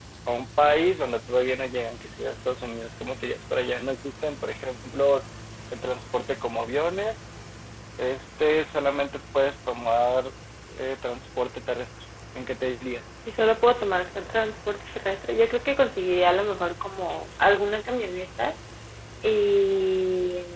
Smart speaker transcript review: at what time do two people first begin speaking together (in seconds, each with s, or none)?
none